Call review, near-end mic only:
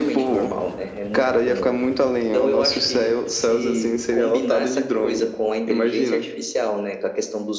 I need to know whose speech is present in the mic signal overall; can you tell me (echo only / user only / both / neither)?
echo only